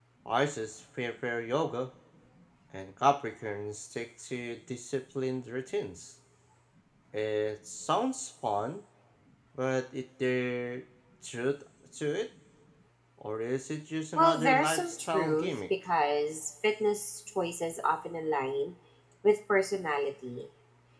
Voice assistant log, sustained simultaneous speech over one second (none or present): present